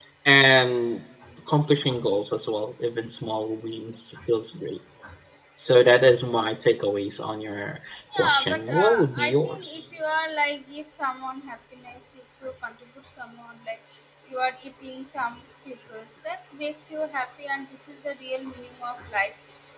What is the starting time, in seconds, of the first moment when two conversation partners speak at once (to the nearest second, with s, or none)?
8 s